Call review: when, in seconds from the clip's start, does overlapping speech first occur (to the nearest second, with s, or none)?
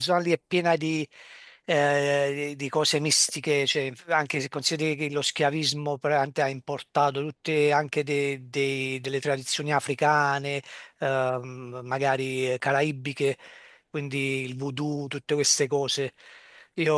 none